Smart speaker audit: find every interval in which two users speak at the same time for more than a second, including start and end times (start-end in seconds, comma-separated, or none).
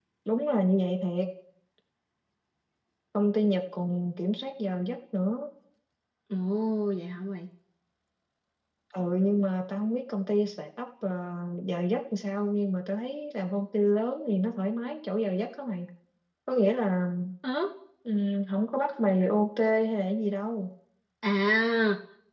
none